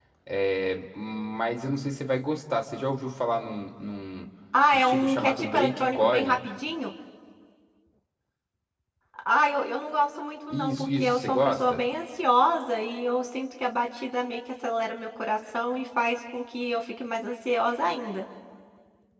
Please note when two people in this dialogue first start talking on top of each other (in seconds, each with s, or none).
4.7 s